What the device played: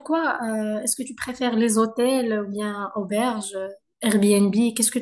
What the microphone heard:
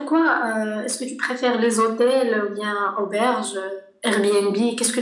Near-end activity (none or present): none